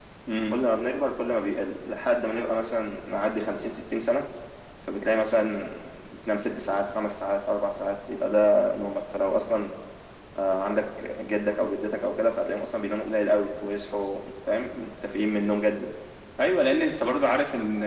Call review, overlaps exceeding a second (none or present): none